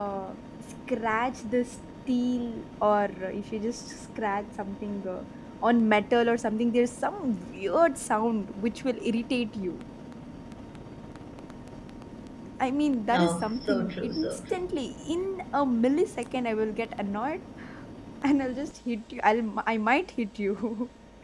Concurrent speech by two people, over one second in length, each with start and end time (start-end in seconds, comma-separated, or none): 13.1-14.6